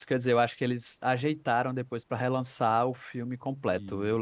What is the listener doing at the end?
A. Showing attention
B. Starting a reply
A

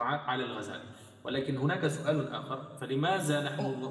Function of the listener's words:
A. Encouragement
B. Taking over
A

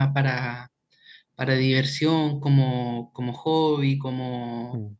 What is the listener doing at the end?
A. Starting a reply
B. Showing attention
B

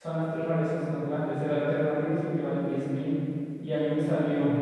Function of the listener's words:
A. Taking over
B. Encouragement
B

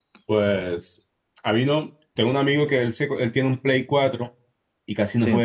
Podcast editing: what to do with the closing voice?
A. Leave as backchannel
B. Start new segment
A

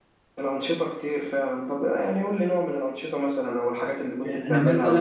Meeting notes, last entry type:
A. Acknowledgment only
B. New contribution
B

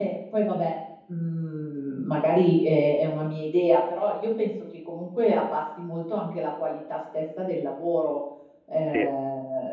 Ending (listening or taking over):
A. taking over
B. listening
A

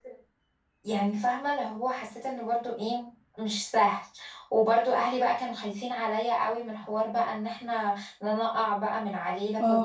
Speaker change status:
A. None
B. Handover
B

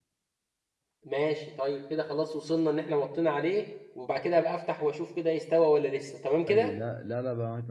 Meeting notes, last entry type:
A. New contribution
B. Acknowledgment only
A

